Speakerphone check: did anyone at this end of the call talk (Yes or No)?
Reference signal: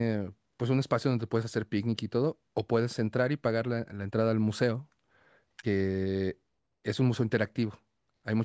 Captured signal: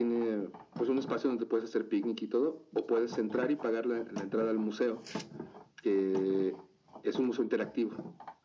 No